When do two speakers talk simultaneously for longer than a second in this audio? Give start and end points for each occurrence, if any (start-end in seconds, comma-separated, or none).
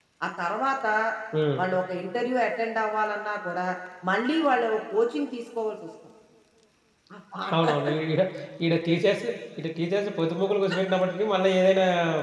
none